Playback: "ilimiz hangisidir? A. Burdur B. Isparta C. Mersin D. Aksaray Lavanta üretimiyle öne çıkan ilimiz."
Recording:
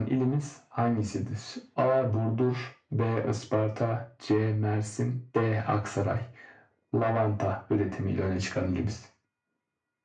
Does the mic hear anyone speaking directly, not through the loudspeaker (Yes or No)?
No